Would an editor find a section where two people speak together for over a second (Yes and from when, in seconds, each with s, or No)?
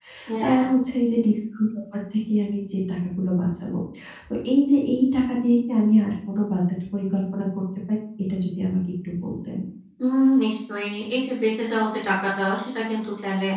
No